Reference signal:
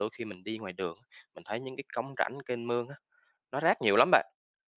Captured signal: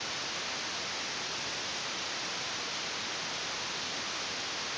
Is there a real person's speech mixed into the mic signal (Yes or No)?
No